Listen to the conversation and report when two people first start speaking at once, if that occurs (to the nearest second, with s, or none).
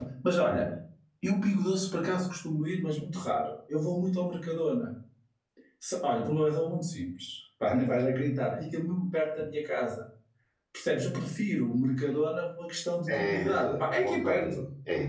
13 s